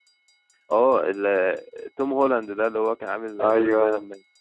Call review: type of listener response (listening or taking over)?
taking over